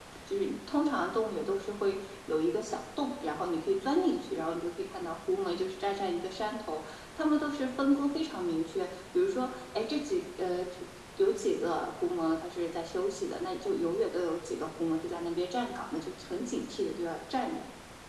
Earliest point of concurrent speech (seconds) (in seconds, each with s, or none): none